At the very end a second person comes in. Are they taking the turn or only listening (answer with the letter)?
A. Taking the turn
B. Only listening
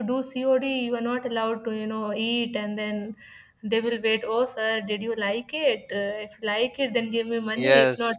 A